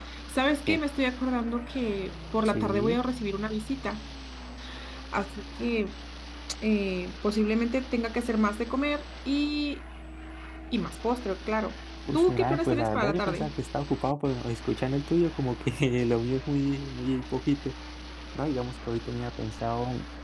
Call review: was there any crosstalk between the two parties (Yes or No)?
Yes